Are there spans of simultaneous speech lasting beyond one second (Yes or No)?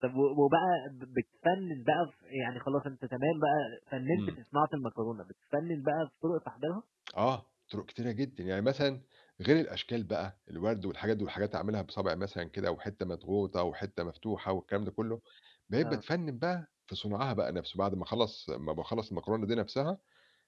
No